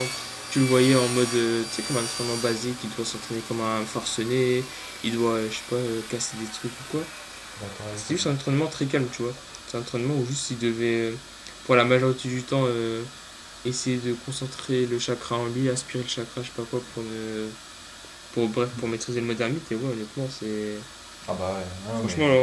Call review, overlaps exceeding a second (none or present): none